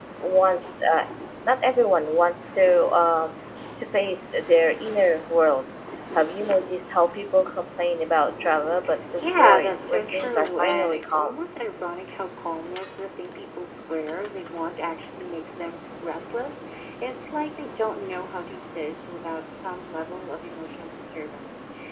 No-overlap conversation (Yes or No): No